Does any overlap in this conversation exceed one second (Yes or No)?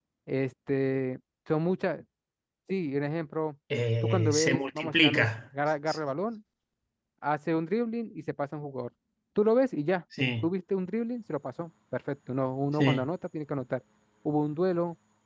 Yes